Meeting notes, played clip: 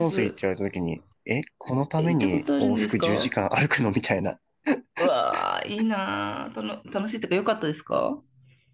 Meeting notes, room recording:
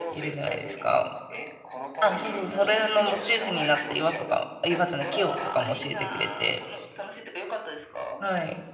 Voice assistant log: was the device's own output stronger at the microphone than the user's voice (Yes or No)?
No